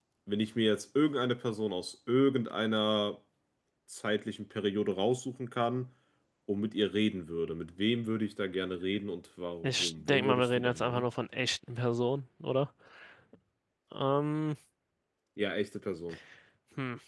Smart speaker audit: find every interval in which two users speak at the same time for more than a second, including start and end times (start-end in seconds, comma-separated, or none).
9.6-11.0